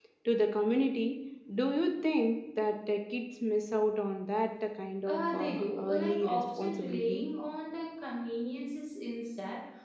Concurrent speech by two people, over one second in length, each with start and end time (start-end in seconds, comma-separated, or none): 5.1-7.3